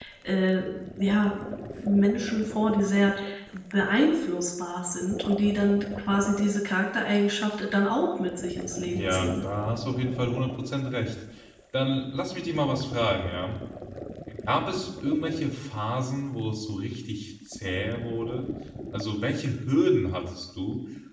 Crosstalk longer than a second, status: none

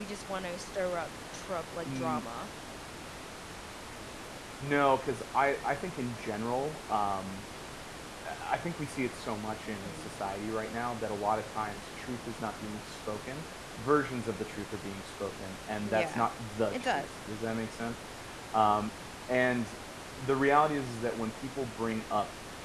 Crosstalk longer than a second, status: none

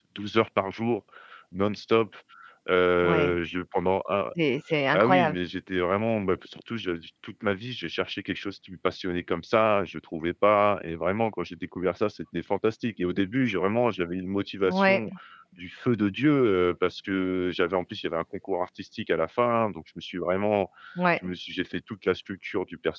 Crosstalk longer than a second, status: none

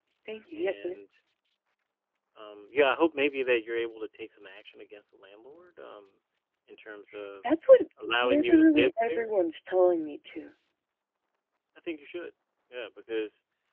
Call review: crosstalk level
present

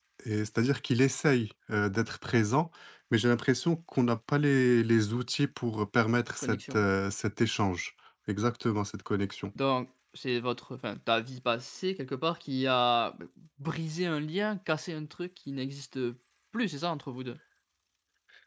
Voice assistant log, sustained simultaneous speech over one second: none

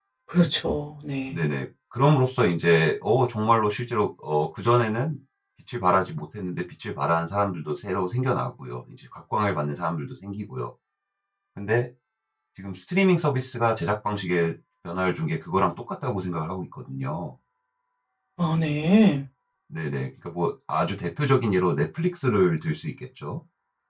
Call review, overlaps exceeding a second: none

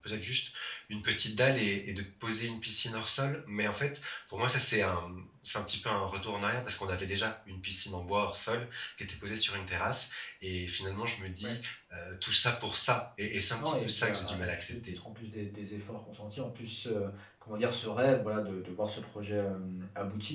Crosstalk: present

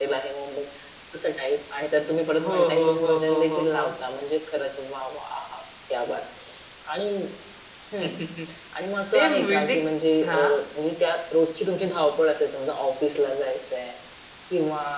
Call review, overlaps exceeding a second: present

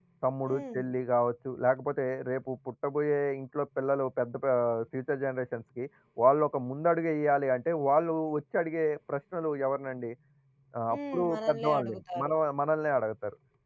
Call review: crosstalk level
present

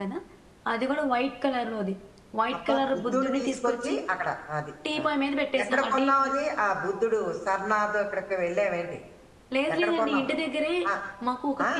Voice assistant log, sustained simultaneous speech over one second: present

